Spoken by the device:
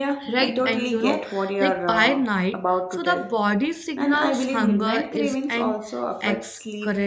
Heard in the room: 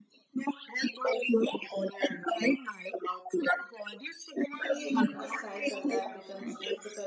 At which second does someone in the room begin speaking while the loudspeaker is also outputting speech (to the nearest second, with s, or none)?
5 s